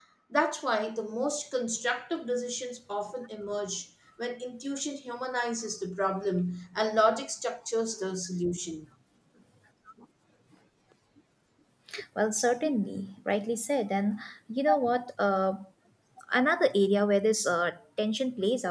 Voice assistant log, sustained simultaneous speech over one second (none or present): none